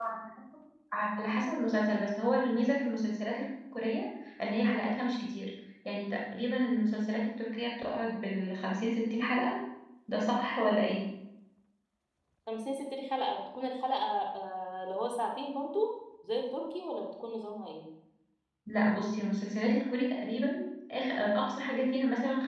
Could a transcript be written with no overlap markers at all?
Yes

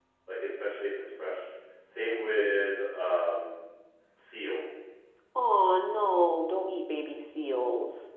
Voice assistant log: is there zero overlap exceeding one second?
Yes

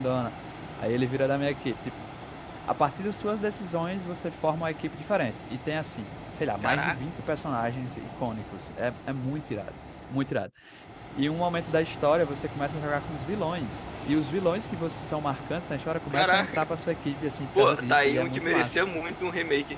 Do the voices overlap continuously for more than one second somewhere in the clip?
Yes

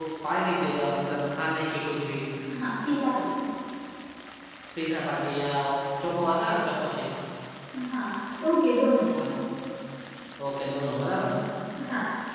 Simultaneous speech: No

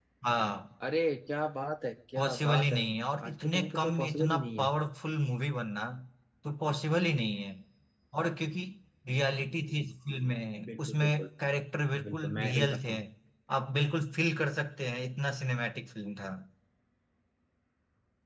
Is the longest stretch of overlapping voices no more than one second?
No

